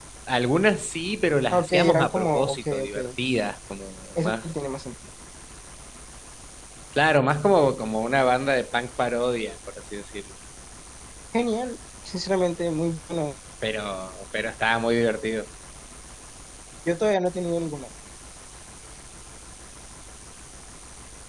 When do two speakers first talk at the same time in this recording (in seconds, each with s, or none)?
1.5 s